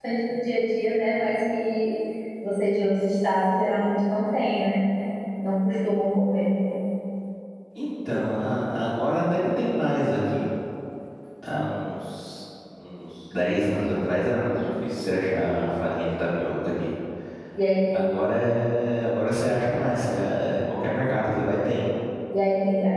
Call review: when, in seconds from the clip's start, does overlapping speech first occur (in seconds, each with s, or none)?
none